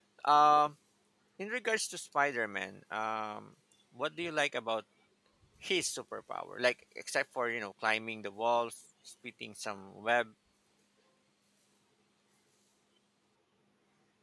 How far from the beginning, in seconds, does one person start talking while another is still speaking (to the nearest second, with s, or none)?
none